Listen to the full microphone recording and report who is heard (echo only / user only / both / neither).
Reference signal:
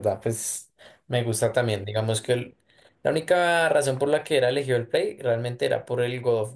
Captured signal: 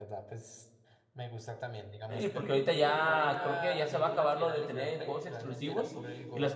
both